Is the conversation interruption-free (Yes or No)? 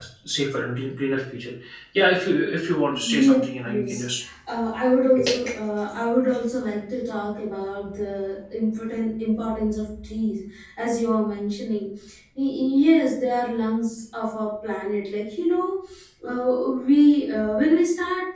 No